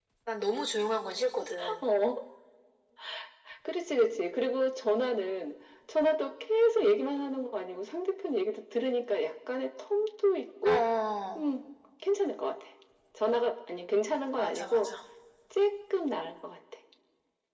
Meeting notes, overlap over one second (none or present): none